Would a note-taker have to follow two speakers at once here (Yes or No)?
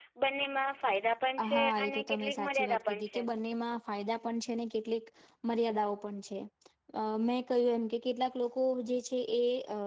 Yes